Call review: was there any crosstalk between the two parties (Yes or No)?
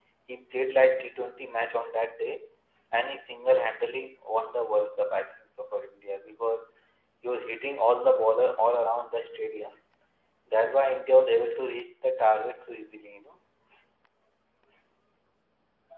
No